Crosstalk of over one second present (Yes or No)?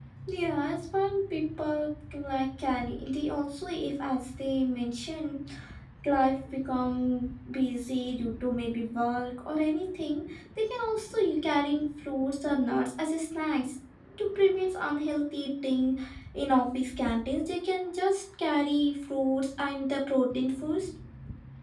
No